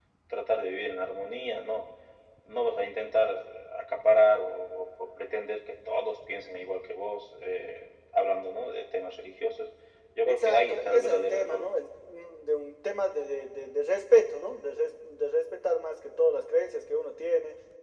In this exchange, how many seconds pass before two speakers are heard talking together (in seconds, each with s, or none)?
10.2 s